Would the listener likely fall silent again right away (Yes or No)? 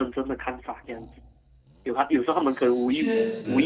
Yes